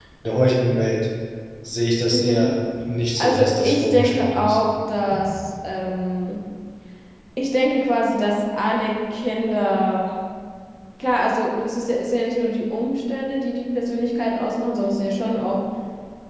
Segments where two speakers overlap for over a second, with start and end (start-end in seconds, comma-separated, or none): 3.2-4.6